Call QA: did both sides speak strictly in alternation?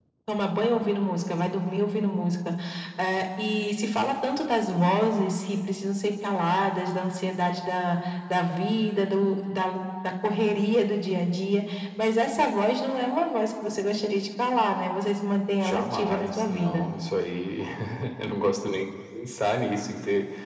No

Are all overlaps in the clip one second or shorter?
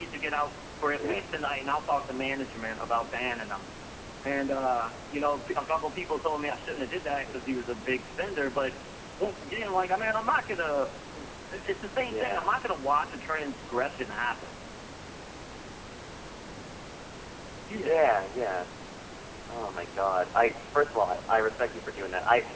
Yes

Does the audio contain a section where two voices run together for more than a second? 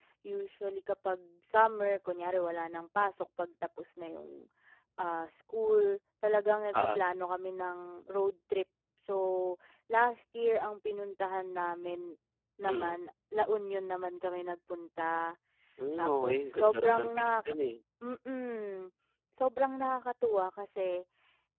Yes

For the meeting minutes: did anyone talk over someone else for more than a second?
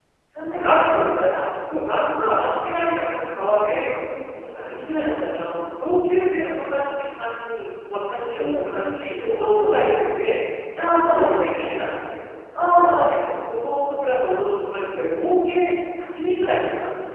No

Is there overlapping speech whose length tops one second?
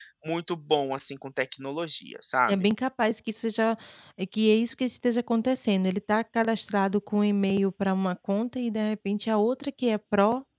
No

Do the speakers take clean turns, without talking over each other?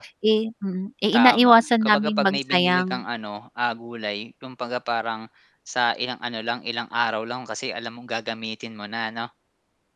No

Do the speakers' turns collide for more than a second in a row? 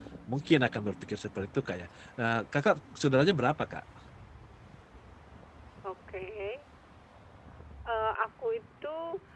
No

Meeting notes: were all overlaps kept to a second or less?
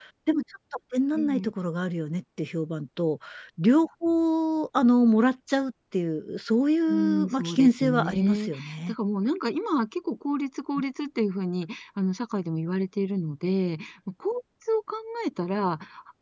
No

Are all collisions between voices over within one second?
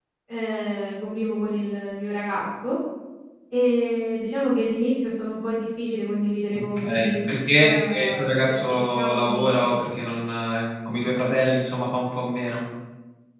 No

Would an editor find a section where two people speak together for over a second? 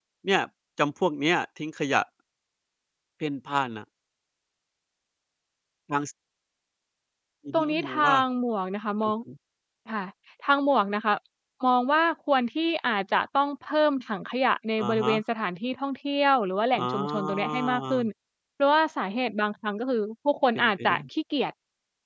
Yes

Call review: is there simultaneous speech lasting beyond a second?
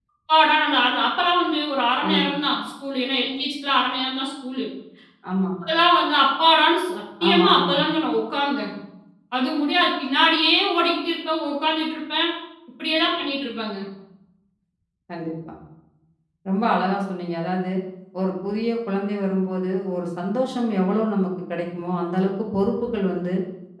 No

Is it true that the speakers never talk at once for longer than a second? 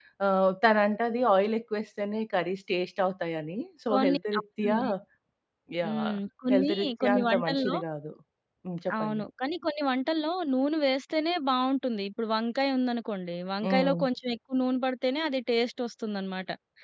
No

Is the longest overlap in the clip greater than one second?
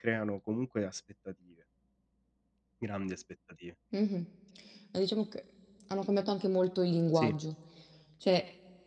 No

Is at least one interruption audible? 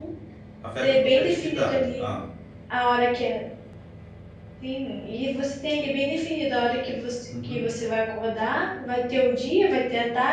Yes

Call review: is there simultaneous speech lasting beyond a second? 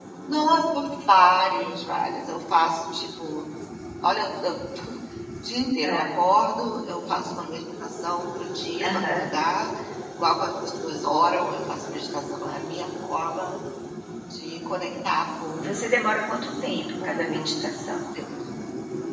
No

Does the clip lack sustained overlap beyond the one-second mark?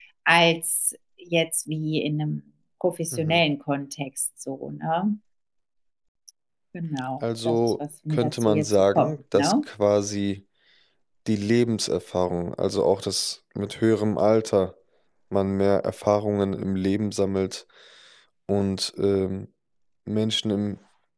No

